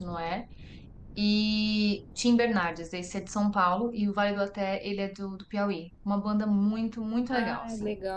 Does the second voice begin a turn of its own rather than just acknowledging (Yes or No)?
Yes